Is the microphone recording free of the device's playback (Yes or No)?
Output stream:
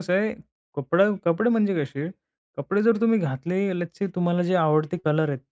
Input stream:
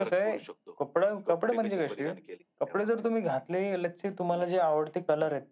No